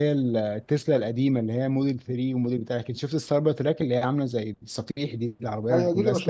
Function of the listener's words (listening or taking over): taking over